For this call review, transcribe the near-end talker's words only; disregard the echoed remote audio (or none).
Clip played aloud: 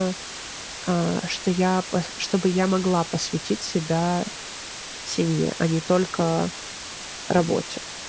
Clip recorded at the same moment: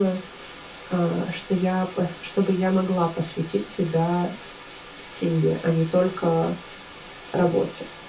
none